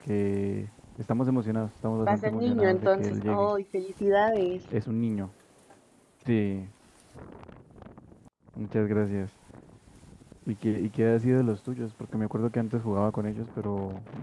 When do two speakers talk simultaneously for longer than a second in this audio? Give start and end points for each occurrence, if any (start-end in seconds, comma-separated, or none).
2.1-3.5